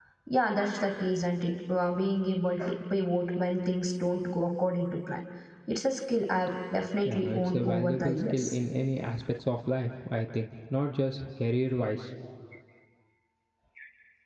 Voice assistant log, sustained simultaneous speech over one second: present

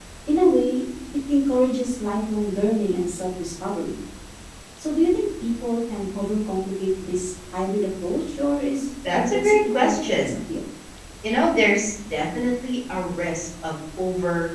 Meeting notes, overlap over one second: present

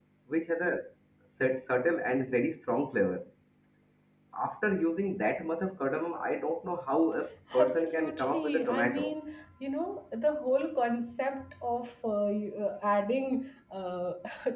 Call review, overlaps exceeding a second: present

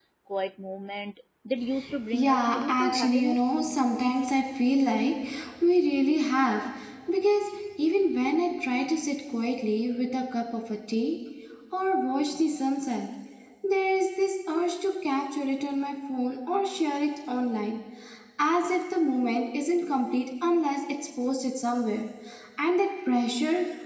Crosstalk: present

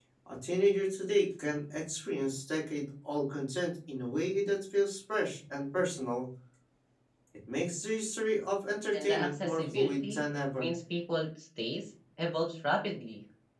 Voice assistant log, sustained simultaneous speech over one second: present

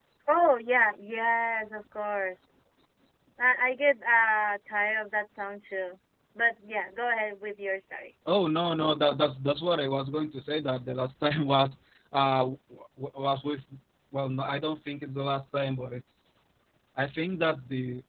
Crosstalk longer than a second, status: none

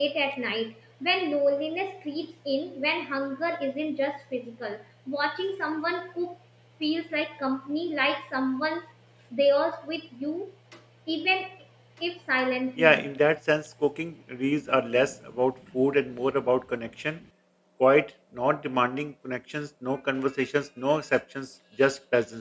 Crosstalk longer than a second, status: none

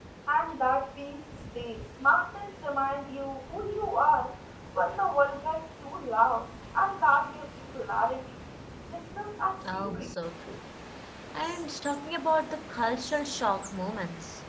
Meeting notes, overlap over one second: none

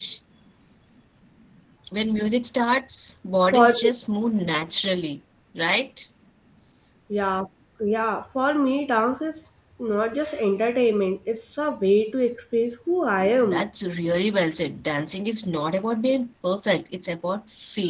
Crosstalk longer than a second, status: none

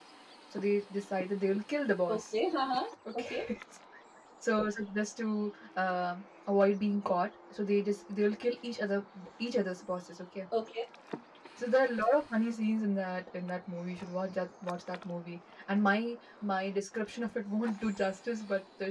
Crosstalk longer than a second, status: none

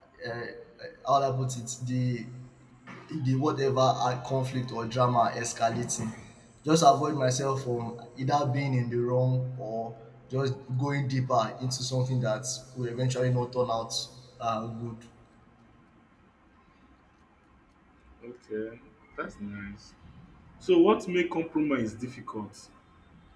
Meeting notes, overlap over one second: none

